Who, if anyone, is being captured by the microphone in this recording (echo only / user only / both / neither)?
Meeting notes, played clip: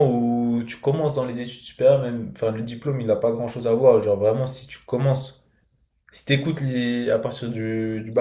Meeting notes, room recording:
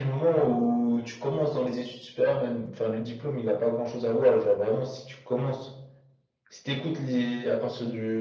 echo only